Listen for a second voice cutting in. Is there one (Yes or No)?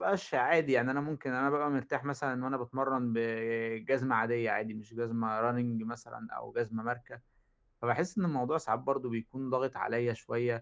No